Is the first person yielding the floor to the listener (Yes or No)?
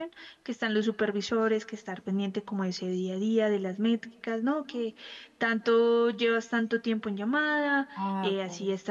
No